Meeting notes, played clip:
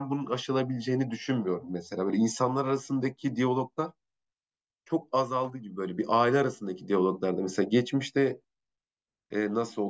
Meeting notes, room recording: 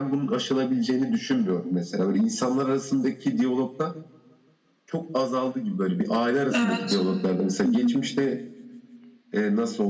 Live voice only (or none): Evet. Hı hı,